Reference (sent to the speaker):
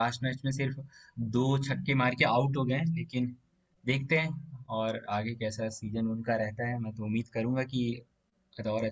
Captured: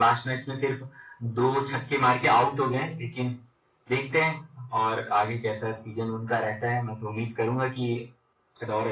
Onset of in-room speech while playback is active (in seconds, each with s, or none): none